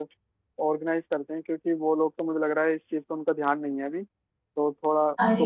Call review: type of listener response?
taking over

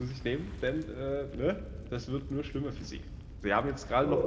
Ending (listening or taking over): listening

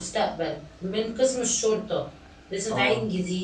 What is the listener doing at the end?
listening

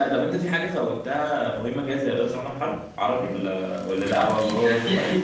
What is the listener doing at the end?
taking over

